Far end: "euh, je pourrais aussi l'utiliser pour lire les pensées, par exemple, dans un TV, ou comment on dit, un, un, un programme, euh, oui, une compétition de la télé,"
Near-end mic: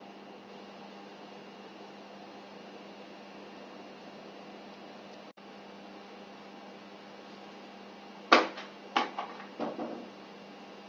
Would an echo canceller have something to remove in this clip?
No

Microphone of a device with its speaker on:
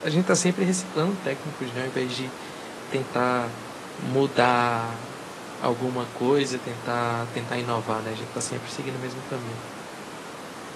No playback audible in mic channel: Yes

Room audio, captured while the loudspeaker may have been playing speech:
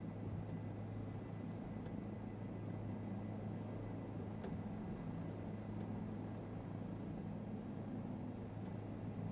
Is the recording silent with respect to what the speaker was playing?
Yes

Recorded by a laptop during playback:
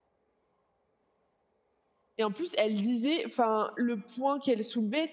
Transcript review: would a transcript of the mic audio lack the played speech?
Yes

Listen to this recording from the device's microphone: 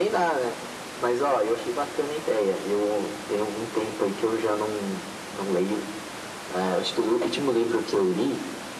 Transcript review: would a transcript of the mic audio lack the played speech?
No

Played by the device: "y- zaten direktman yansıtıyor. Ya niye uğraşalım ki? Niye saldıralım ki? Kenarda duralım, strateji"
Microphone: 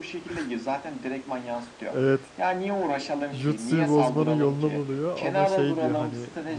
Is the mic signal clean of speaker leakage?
No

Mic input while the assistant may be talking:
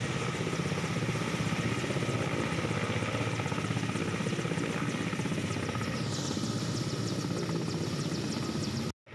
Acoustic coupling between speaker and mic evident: No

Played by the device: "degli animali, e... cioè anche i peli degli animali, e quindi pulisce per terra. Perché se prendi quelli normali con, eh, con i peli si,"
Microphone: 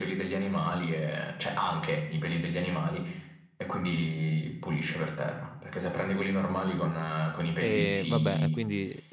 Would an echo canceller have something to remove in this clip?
Yes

